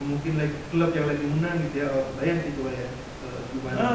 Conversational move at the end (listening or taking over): taking over